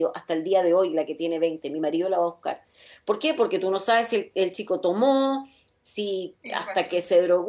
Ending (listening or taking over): listening